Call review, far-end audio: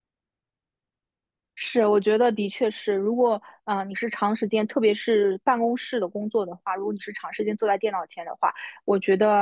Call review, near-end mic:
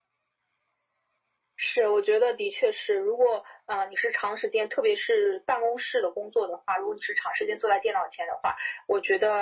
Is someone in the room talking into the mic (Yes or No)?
No